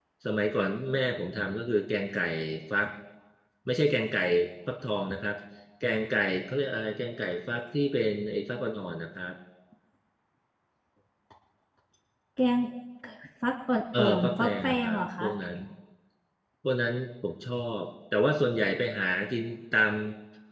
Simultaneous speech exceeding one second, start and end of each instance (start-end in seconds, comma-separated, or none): 14.0-15.3